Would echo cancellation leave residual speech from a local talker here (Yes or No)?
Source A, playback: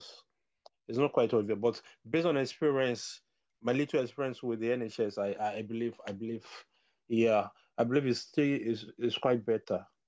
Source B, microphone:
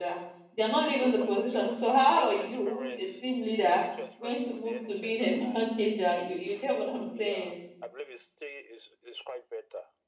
Yes